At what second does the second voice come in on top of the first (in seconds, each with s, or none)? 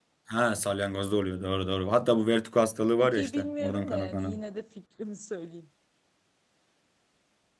3.0 s